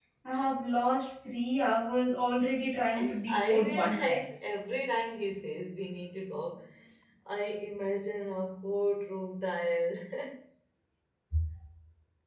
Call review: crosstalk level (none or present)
present